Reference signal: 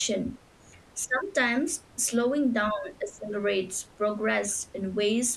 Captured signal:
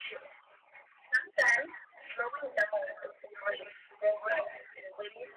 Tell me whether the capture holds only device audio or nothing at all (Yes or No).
Yes